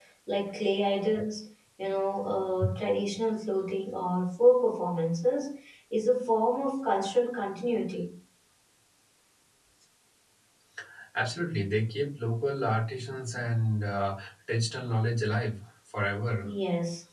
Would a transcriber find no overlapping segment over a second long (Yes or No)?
Yes